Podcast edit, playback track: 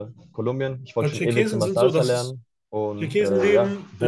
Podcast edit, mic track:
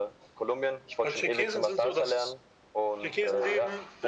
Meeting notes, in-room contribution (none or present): none